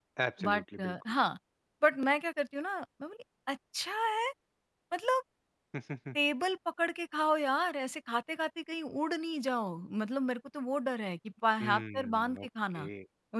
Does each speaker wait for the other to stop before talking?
No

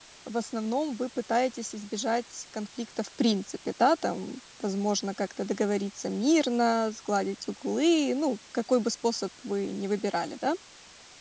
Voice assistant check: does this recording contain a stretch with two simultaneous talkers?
No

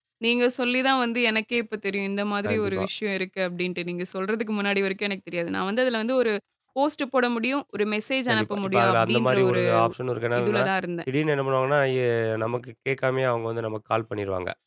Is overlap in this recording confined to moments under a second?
No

